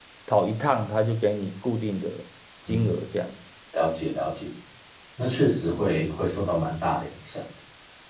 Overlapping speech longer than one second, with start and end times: none

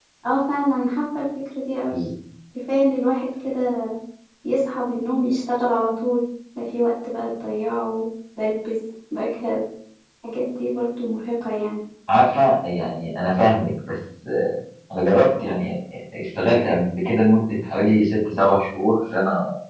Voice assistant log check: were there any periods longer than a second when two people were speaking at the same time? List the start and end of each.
none

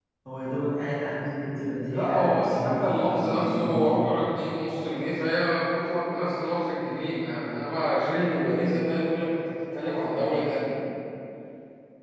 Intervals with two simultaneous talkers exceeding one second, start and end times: 1.9-4.3

